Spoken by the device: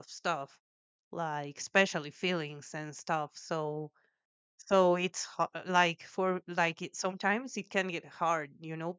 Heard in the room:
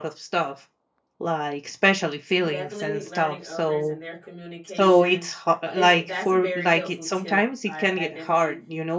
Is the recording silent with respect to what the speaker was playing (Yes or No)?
No